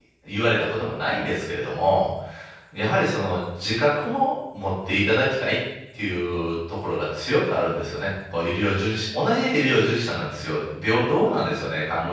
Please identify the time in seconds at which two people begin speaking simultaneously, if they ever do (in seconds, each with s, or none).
none